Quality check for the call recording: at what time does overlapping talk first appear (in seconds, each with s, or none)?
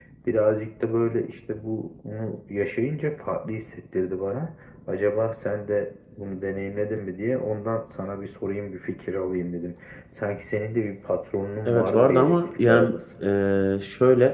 11.6 s